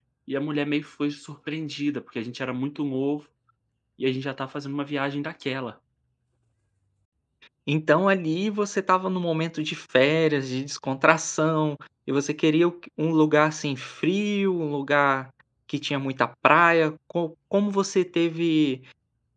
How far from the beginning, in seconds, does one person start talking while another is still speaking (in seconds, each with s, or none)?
none